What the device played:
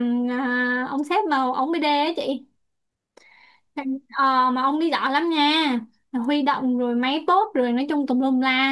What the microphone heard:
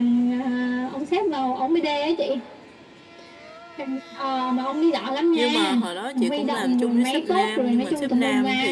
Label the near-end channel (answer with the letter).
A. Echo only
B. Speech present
B